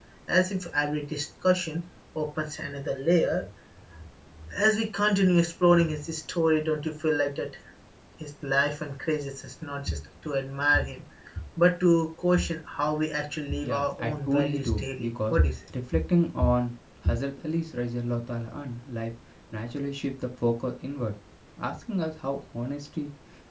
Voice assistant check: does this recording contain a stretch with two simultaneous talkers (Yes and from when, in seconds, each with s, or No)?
Yes, from 13.6 s